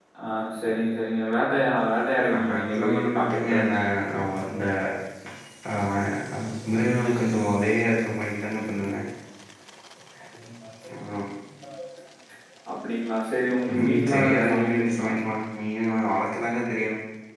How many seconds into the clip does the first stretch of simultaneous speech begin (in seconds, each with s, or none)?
2.3 s